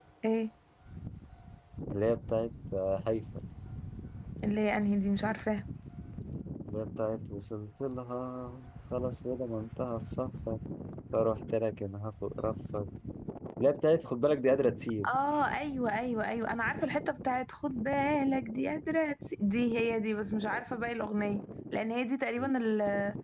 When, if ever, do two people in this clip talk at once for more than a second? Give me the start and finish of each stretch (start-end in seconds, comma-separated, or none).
none